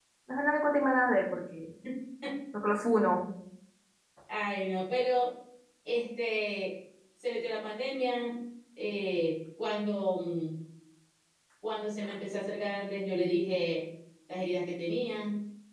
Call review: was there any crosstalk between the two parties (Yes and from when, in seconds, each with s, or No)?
No